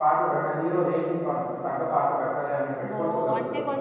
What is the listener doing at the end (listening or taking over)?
taking over